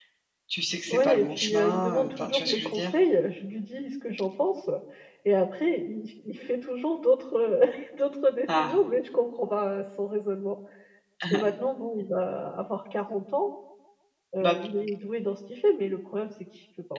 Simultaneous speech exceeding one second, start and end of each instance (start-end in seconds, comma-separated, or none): 0.9-2.9